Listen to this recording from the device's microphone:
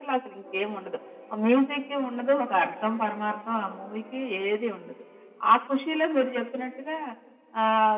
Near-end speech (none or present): none